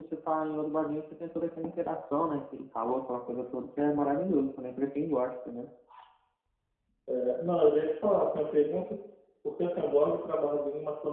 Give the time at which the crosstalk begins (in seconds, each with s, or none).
none